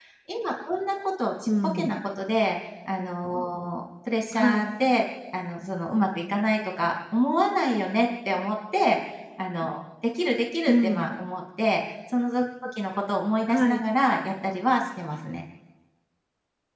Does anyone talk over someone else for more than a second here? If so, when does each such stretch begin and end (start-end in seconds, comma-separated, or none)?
none